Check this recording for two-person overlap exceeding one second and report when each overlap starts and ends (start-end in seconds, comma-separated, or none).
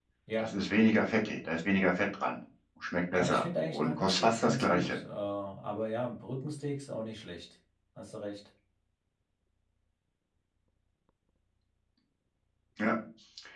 3.1-5.0